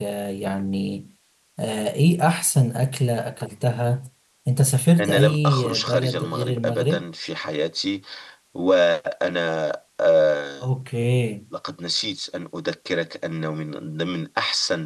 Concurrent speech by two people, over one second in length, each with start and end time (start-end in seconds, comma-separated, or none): 5.0-7.0